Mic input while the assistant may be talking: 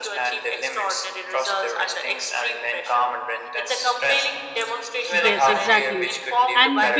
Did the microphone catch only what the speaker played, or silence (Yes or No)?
No